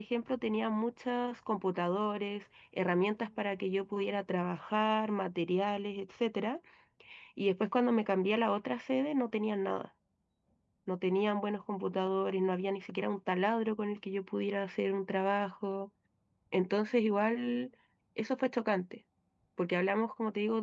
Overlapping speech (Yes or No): No